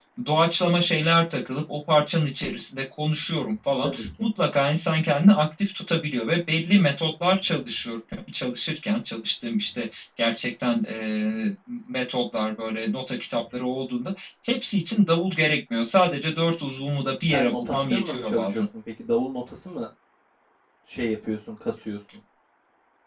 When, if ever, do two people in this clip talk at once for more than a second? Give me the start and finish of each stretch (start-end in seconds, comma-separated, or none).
17.2-18.6